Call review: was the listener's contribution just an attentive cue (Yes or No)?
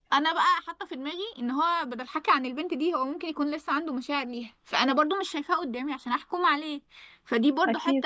Yes